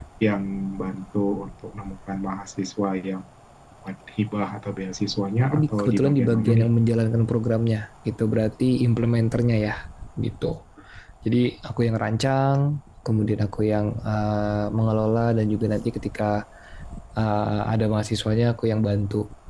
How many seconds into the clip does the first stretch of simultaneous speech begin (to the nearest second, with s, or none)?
5 s